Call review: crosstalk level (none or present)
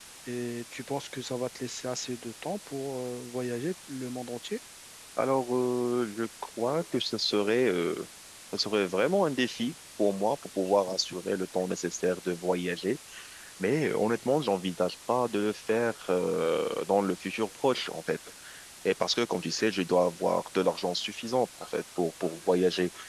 none